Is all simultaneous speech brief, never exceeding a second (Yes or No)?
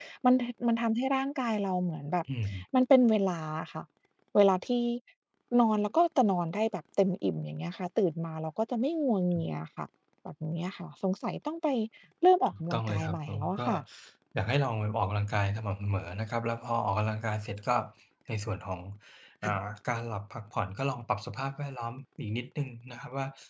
No